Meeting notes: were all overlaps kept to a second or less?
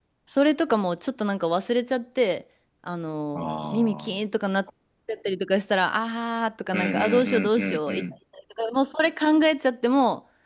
No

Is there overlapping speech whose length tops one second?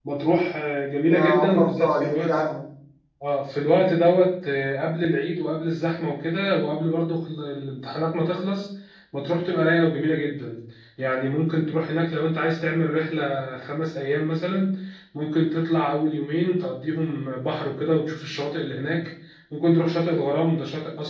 Yes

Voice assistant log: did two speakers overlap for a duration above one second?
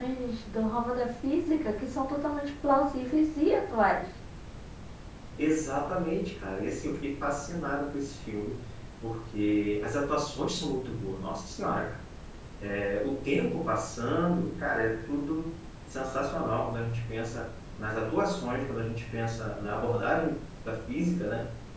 No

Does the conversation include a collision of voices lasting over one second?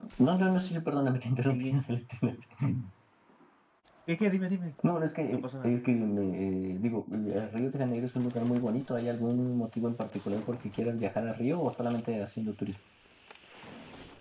No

